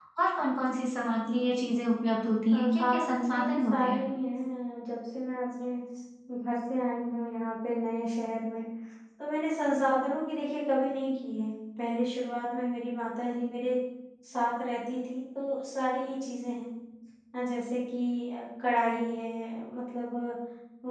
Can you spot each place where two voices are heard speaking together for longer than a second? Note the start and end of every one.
2.5-4.0

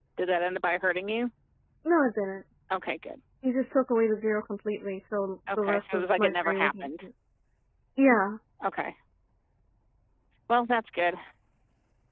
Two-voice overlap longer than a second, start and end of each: 5.6-7.0

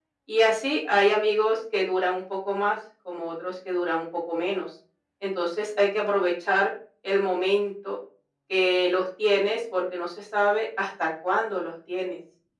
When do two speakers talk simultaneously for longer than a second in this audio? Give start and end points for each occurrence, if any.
none

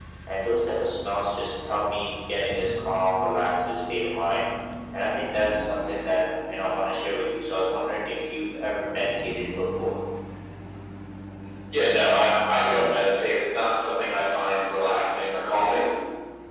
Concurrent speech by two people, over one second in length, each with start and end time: none

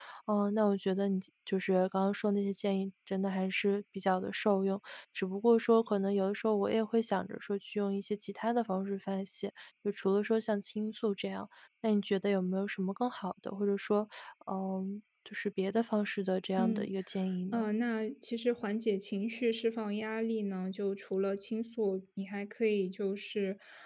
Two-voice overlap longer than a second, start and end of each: none

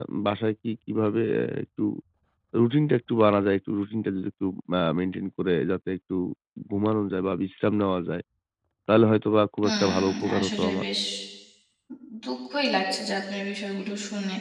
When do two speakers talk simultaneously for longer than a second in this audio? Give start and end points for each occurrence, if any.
9.6-10.8

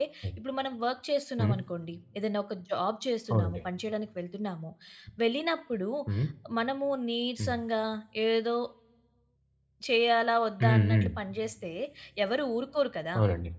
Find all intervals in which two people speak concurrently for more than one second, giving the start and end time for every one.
none

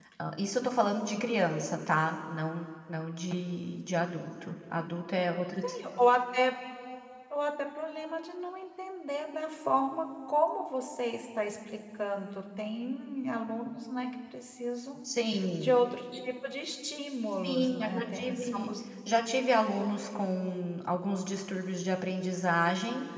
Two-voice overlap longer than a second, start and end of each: 17.4-18.7

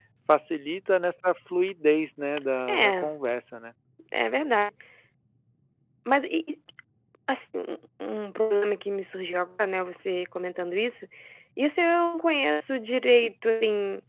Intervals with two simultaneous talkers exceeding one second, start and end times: none

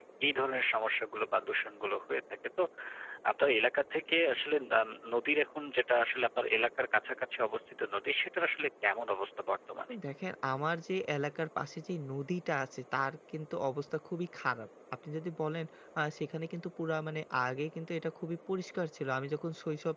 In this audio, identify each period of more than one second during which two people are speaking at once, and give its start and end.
none

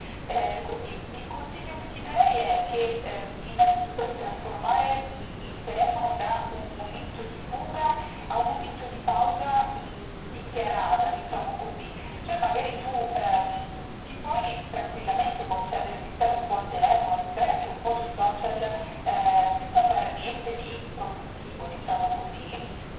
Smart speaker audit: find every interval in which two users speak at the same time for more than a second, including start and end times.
none

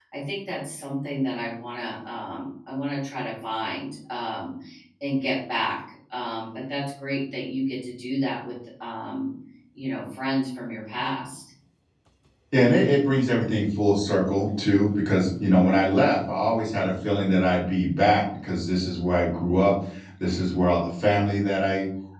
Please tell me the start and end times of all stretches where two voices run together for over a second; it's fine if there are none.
none

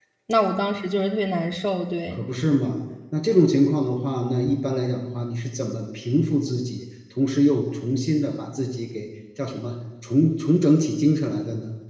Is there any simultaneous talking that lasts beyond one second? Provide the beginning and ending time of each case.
none

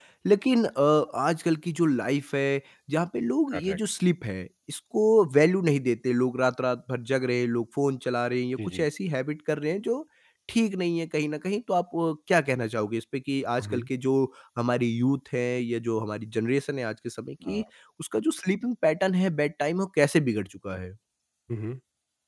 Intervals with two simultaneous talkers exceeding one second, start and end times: none

